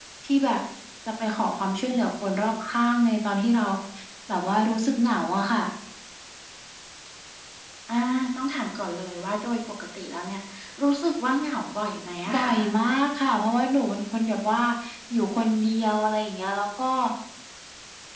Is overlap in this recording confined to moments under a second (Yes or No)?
Yes